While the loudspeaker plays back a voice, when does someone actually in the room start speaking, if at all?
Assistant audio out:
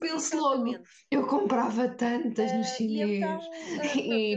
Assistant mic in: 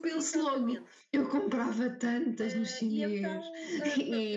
none

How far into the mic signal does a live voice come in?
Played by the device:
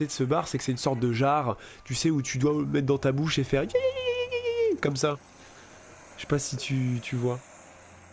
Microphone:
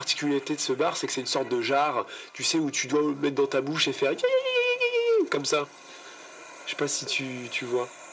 none

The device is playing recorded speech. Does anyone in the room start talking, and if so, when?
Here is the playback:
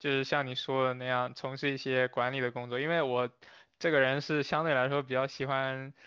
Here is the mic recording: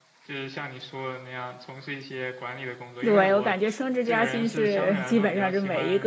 3.0 s

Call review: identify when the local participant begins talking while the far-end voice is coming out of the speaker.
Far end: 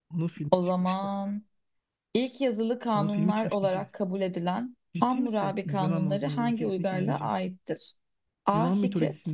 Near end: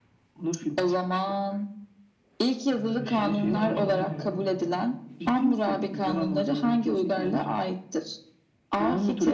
2.7 s

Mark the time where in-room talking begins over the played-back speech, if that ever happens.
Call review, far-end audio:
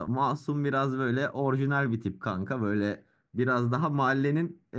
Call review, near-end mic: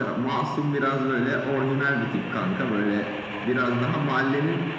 none

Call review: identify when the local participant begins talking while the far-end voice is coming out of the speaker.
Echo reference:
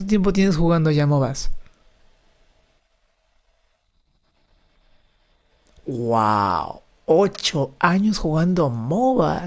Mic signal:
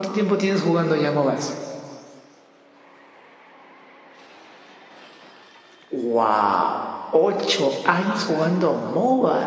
none

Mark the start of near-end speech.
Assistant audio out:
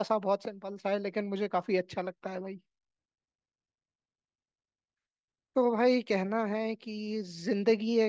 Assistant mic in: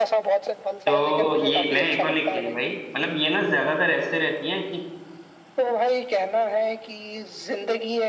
0.9 s

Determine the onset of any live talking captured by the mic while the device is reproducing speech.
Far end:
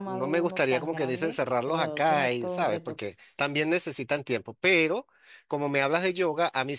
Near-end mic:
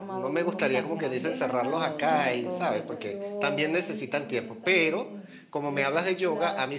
0.4 s

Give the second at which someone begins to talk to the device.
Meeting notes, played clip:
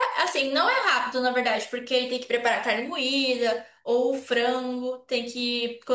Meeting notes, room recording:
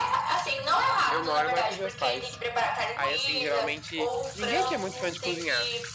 1.1 s

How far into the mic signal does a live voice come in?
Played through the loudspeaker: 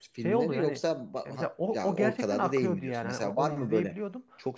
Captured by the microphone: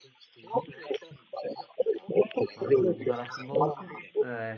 2.5 s

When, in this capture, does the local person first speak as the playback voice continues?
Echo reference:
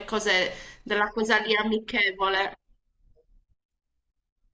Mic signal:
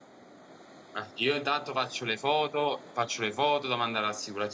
0.9 s

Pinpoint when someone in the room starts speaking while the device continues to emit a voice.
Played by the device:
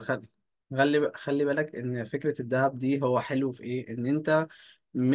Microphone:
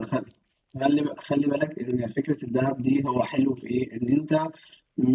none

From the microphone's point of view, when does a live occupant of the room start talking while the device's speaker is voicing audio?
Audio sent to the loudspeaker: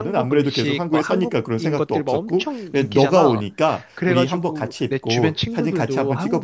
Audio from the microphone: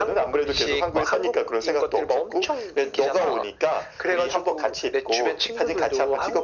none

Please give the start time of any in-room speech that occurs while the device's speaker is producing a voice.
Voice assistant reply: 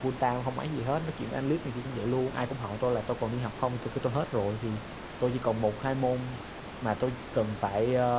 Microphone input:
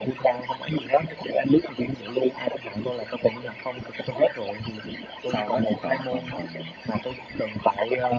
5.2 s

